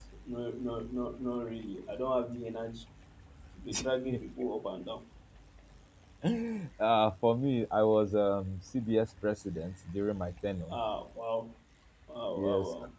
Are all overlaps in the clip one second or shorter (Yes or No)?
Yes